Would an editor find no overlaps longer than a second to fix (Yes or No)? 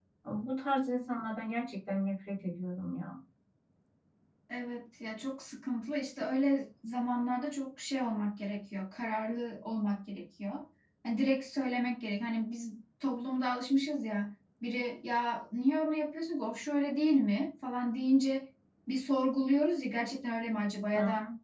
Yes